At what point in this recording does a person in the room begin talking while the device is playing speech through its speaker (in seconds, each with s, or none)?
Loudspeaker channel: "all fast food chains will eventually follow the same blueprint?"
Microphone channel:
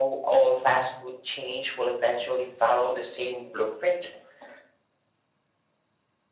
none